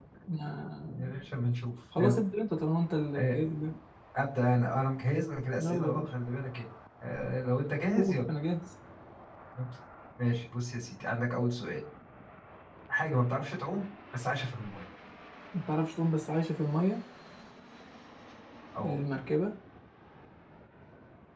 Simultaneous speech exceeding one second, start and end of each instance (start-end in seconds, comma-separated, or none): none